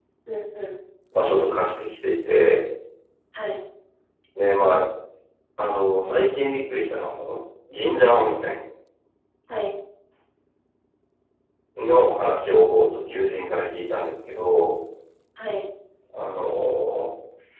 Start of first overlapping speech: none

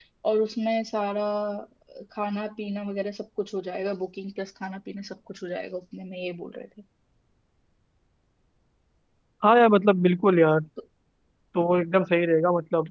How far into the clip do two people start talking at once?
none

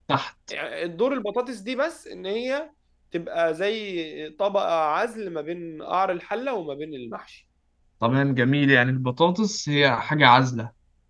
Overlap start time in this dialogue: none

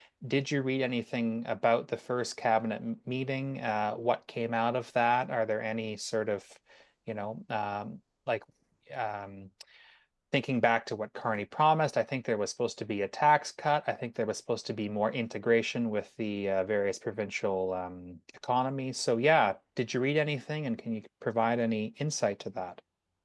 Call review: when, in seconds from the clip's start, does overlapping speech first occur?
none

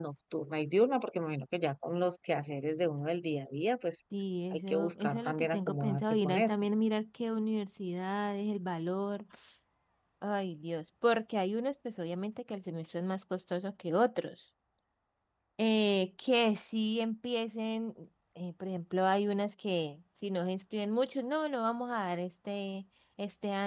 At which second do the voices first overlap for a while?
4.5 s

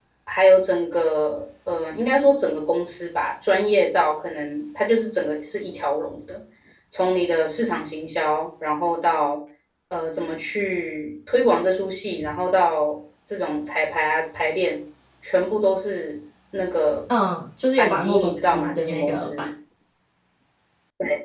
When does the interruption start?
17.8 s

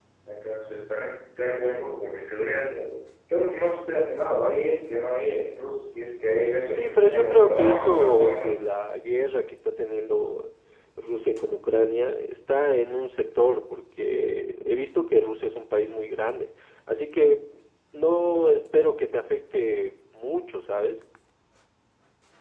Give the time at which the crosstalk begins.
6.7 s

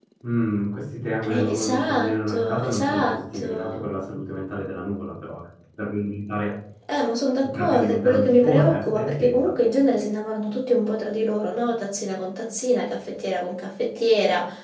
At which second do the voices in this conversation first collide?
1.3 s

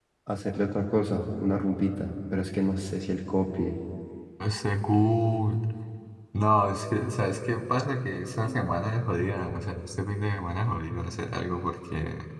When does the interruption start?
none

